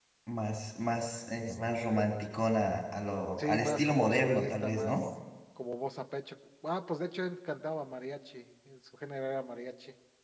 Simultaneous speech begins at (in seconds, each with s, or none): 3.4 s